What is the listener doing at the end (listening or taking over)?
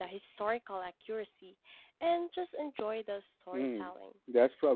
taking over